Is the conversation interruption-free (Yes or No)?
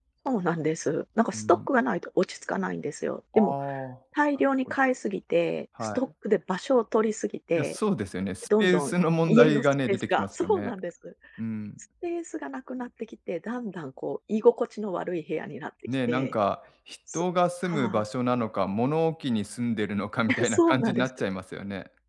No